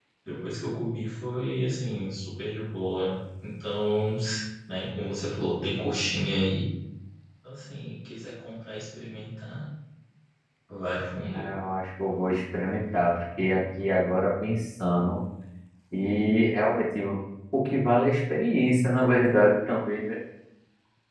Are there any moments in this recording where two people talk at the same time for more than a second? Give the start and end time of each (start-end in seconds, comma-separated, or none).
none